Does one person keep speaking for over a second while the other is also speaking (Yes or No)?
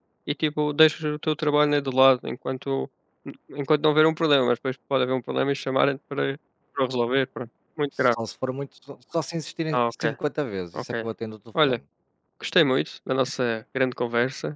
No